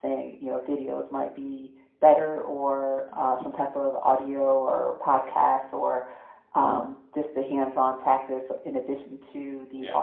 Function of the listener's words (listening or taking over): listening